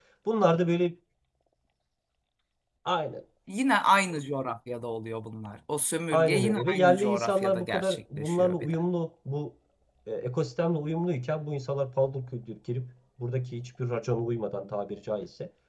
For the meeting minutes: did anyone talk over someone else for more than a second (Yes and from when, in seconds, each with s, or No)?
Yes, from 6.1 s